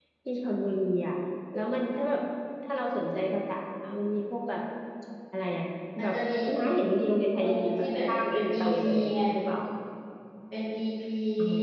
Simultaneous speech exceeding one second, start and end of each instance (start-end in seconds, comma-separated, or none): 7.4-9.1